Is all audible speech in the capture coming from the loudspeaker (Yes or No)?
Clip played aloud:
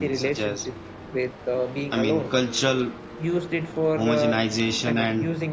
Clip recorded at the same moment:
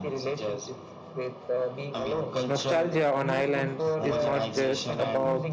No